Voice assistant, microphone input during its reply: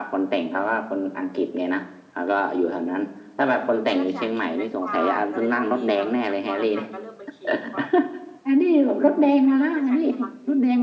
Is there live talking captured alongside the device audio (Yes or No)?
Yes